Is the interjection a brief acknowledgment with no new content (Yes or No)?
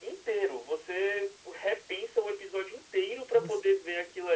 Yes